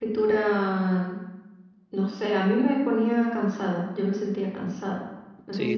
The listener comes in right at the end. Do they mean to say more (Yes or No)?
Yes